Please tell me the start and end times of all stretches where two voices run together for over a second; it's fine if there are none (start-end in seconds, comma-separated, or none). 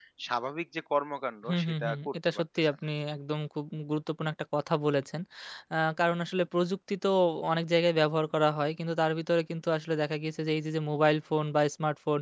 1.5-2.8